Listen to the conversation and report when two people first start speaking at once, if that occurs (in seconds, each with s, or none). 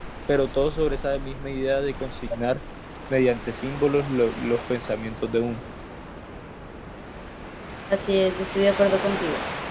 none